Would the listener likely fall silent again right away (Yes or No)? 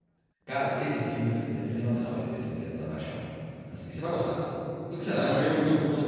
Yes